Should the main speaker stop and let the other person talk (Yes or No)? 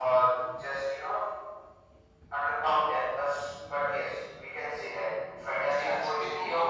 Yes